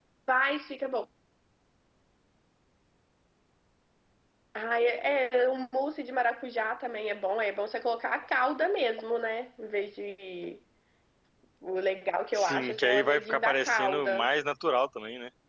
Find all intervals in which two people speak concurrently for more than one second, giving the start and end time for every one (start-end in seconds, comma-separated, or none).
12.3-14.3